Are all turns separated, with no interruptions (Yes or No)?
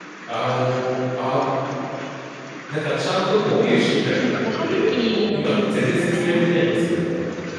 No